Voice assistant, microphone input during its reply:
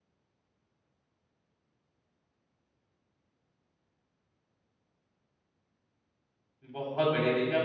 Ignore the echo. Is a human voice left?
Yes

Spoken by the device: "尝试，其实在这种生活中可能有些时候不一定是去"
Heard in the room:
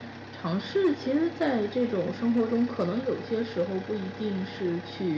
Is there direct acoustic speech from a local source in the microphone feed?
No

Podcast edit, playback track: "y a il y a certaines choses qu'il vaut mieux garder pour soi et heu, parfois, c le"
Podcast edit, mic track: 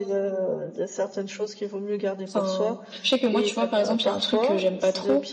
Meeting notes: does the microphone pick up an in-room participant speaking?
Yes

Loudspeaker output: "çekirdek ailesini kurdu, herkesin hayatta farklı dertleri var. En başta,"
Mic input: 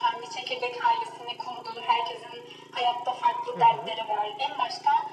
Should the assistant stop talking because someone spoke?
Yes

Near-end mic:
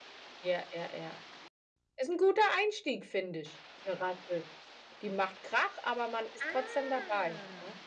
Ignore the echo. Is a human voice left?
Yes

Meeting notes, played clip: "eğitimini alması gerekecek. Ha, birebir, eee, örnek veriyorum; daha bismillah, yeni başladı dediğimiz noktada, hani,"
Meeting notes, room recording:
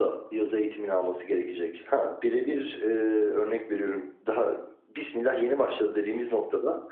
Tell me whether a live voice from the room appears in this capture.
No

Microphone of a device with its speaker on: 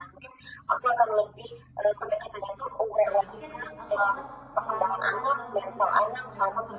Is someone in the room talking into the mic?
Yes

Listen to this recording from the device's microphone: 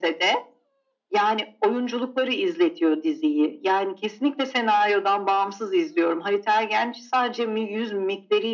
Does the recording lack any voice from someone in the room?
Yes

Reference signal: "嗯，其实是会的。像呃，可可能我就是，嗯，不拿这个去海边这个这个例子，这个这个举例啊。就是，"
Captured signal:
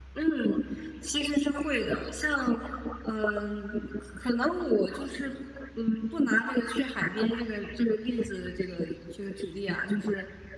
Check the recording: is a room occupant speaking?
No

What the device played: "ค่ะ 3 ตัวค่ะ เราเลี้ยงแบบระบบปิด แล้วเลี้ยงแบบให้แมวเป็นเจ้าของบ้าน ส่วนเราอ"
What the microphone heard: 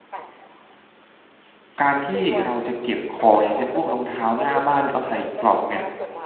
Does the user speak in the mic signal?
Yes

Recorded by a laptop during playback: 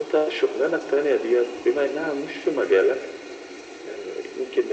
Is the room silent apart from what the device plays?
Yes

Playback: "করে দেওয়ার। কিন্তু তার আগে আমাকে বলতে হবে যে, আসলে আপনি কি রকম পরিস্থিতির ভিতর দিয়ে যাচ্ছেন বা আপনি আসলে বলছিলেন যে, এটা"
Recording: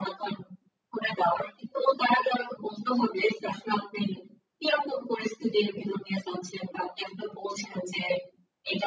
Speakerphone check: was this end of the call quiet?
Yes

